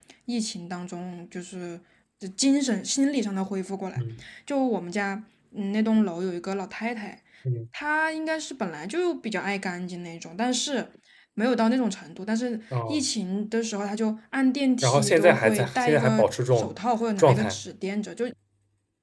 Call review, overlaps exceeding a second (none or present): present